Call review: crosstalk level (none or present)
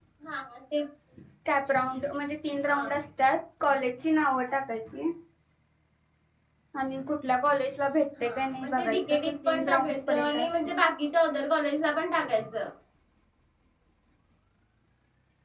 present